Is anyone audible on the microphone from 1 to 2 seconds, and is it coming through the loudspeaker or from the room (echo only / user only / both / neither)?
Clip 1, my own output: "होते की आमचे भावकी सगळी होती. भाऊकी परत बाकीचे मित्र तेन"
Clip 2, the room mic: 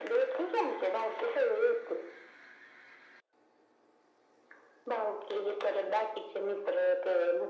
echo only